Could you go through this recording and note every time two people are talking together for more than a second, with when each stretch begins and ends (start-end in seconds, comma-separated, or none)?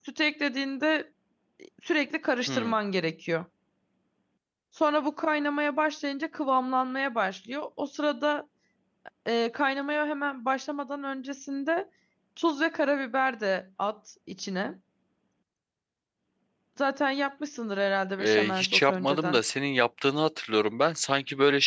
18.2-19.4